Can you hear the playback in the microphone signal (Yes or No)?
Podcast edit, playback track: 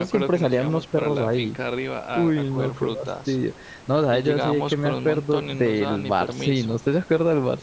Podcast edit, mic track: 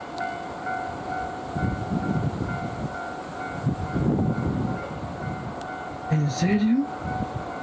No